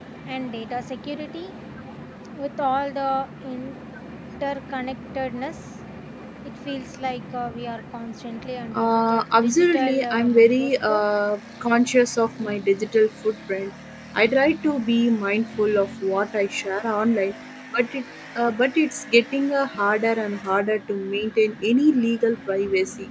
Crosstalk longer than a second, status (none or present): present